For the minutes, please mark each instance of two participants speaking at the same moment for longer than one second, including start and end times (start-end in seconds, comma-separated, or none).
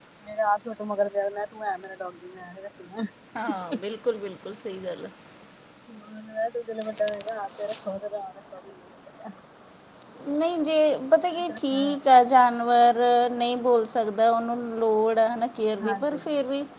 none